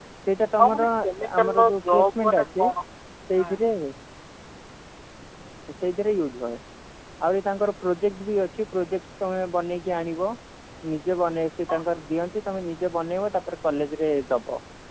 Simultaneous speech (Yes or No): Yes